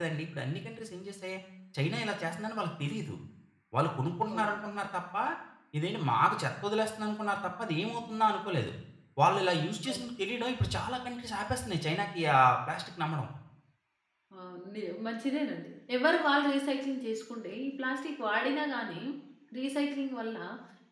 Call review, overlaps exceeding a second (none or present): none